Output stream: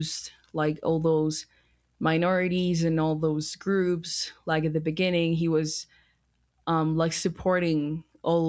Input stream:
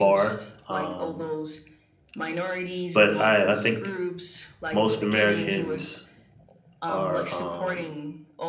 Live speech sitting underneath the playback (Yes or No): No